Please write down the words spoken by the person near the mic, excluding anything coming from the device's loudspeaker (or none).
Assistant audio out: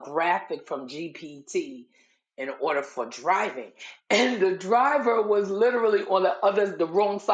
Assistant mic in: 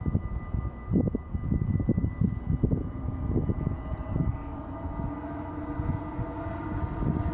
none